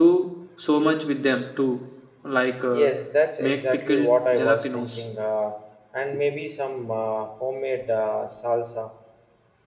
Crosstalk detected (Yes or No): Yes